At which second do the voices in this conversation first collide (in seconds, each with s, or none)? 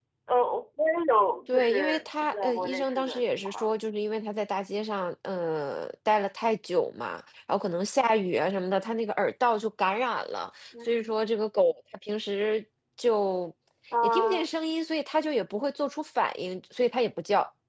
1.5 s